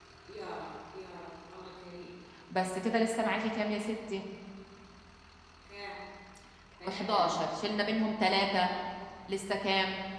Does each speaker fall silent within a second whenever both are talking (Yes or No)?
Yes